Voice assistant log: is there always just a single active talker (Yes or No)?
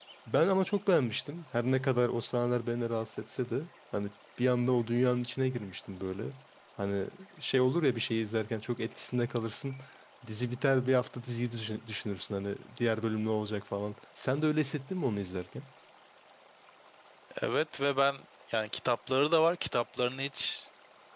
Yes